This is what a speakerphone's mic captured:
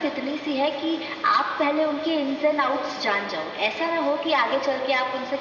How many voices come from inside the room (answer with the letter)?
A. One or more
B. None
B